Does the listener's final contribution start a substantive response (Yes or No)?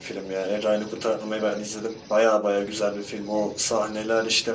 No